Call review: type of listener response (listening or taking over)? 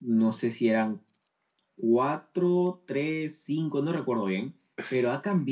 listening